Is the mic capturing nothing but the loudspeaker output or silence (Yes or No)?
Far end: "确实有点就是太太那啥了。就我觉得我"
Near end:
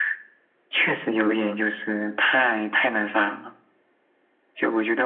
Yes